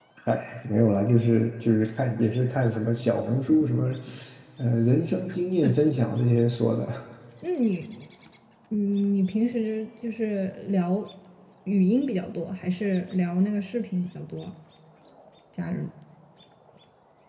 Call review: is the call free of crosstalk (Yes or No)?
Yes